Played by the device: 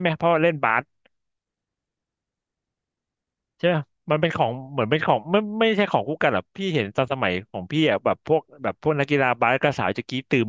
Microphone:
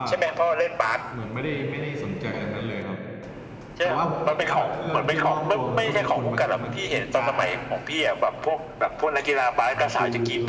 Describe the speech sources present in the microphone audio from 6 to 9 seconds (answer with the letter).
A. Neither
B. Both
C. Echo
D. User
B